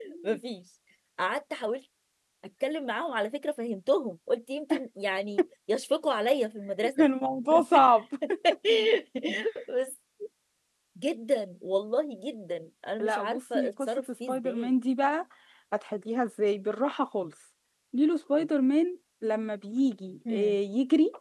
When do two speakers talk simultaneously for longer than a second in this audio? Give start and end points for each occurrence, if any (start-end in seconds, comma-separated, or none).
13.0-14.7